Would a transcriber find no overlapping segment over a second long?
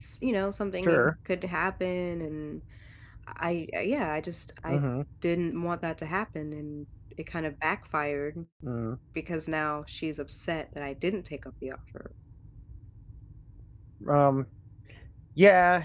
Yes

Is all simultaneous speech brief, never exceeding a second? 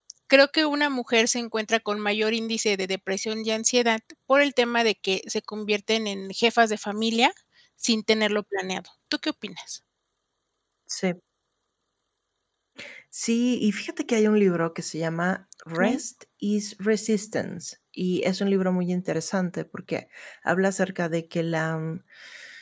Yes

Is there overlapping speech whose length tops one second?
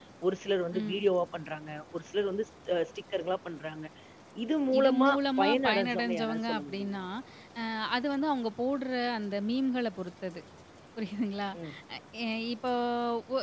Yes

